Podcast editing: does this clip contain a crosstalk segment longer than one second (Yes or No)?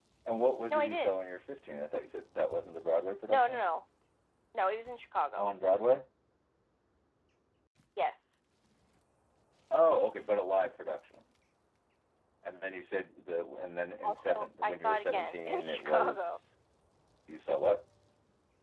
Yes